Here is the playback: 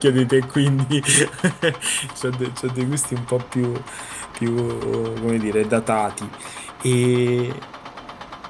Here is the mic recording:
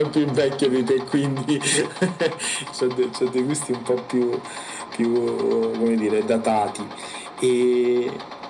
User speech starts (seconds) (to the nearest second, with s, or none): none